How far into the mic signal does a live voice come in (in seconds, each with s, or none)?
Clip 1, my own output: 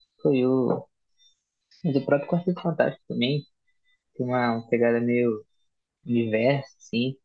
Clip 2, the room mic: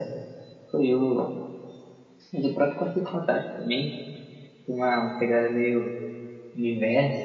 none